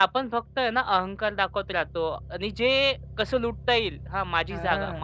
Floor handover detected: No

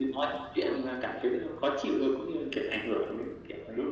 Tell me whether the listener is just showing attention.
No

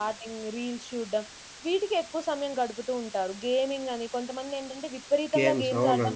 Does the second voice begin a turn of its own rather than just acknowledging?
No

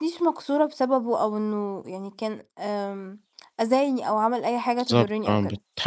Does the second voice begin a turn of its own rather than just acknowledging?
Yes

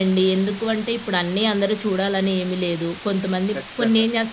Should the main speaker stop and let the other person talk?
No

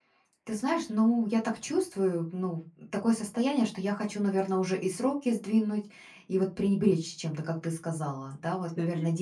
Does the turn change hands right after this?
No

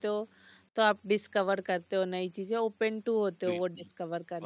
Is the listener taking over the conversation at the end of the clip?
Yes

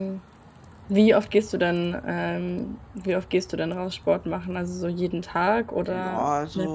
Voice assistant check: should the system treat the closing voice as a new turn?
Yes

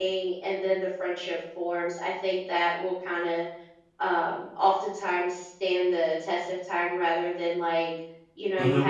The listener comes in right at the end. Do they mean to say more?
No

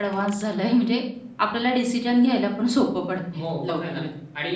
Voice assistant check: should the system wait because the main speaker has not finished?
No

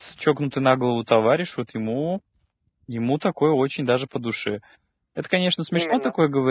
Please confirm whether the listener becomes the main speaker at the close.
No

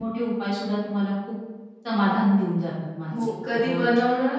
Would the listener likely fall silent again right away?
No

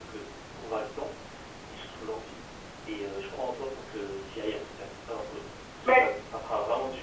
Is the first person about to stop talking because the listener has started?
No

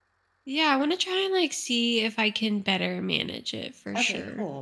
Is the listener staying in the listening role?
No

